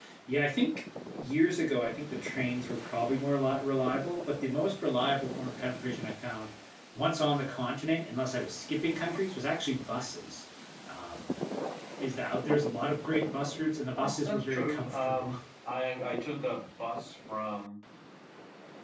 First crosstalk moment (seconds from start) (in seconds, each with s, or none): 13.9 s